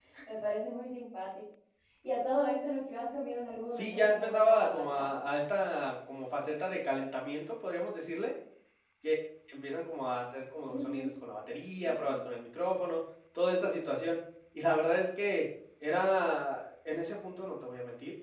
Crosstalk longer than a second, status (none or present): present